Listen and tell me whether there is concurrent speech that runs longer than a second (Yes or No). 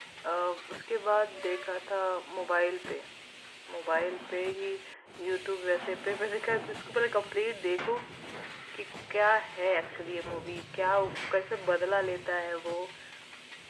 No